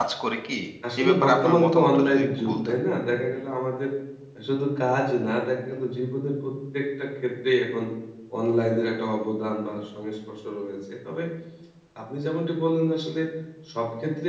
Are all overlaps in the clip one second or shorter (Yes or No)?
No